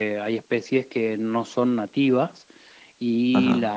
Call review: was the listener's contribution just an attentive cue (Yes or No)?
Yes